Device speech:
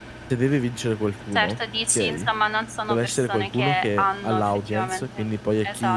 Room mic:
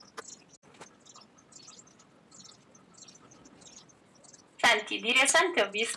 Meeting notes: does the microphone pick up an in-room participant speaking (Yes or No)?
Yes